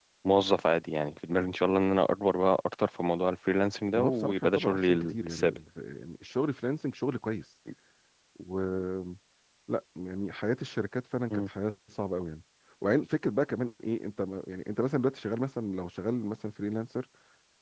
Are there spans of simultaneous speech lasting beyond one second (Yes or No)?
Yes